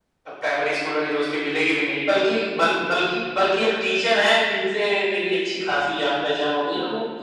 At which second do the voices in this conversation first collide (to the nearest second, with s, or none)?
none